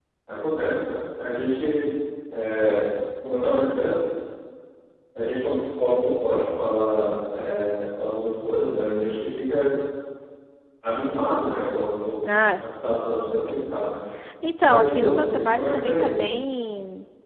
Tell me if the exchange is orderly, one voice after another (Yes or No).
No